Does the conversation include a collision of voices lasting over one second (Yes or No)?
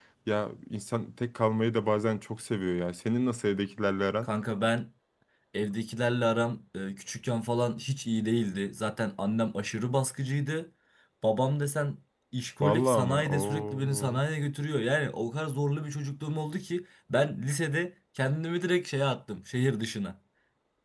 Yes